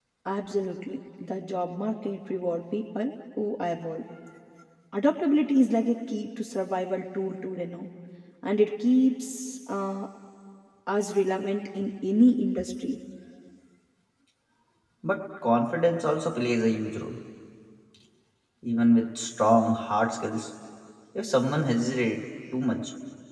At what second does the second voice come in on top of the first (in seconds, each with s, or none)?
none